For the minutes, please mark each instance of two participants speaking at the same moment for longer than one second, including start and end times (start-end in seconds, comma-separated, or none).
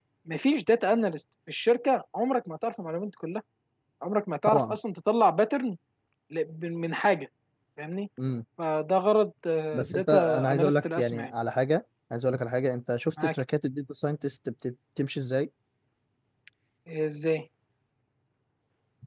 10.0-11.3